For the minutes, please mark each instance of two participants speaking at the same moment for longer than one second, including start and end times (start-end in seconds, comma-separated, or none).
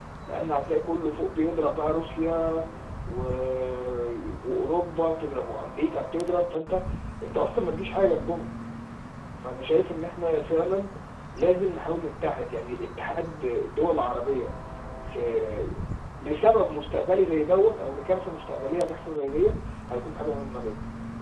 none